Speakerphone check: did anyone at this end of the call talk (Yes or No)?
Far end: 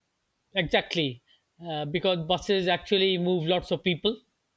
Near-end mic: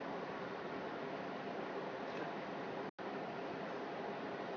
No